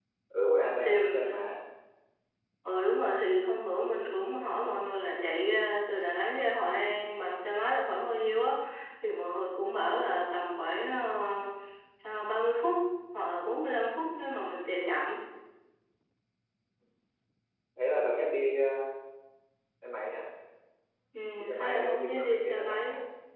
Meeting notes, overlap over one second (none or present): present